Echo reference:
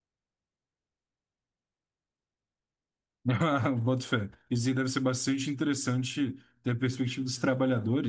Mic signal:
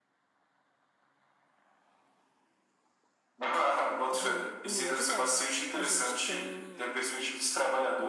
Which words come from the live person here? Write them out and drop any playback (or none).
de em lua de mel, a gente tem